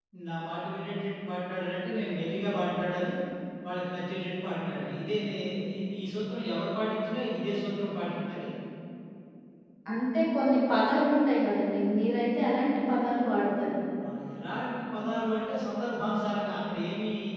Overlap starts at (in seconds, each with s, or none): none